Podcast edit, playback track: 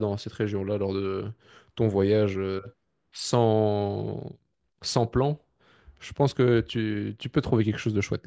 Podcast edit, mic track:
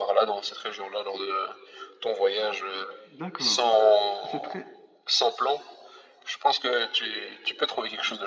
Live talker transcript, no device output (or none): D'accord. C'est très...